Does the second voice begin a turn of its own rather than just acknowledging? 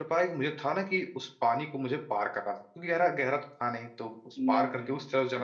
No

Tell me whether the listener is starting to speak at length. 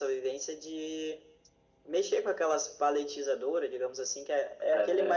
No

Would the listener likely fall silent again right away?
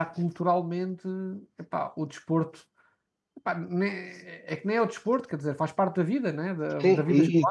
No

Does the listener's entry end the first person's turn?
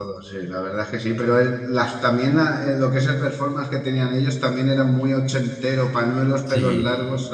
No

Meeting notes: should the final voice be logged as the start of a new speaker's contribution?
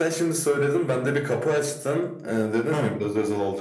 No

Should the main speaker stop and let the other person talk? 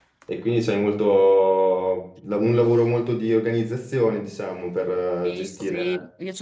Yes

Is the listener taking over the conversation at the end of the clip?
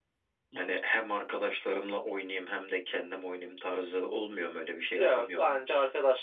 Yes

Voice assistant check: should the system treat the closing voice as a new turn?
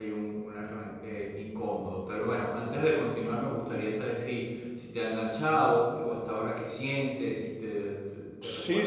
Yes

